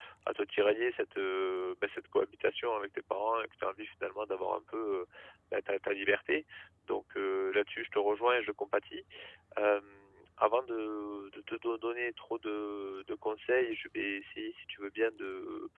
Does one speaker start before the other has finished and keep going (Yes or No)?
No